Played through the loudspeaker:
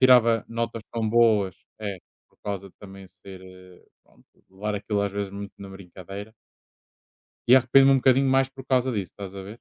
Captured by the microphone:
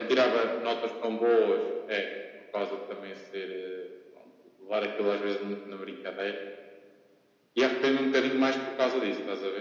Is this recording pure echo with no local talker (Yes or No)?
Yes